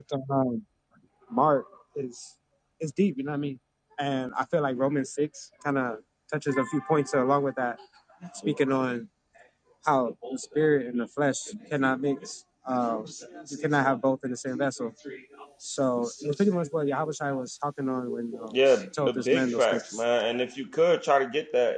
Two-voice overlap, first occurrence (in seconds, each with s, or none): 18.5 s